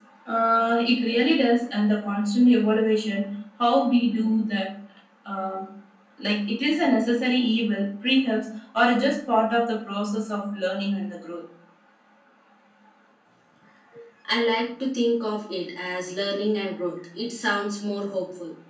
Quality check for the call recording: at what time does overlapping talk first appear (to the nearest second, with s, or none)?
none